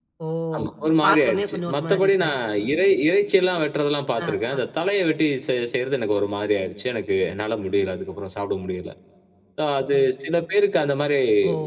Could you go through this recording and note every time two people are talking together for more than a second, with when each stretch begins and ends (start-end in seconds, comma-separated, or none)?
1.0-2.4